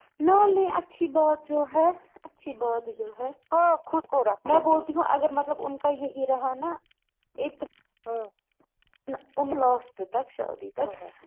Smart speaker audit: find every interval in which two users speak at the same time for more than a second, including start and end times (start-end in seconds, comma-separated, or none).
none